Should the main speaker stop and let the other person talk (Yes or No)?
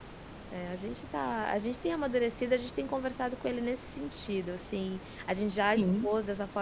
No